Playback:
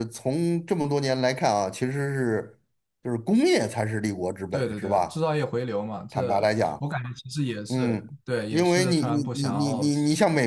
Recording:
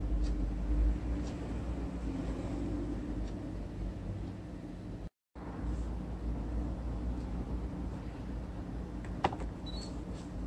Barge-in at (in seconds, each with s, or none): none